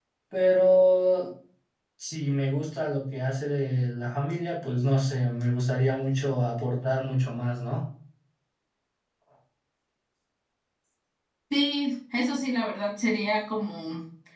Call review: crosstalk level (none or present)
none